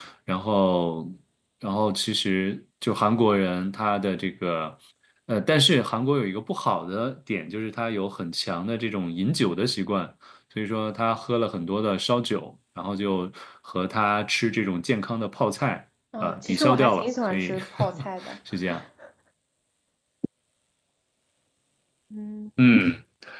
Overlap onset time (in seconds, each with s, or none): 16.1 s